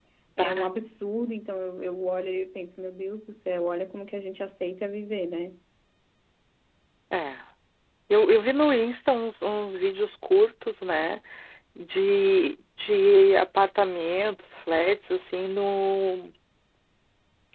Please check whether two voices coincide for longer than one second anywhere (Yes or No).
No